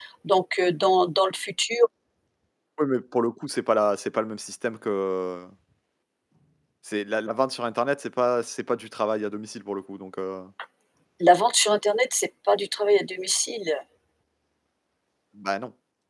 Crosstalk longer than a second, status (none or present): none